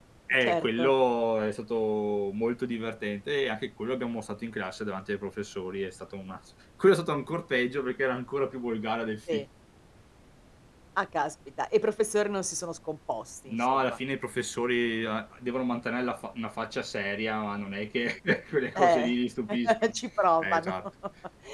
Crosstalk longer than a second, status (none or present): none